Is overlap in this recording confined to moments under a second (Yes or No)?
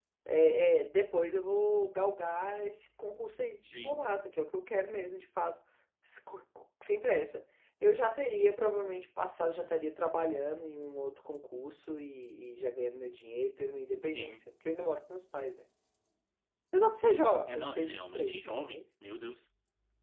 No